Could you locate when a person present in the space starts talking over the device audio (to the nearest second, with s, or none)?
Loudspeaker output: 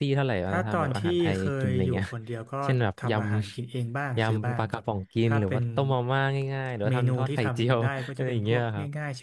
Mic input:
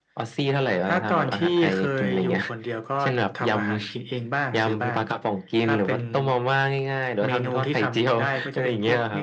none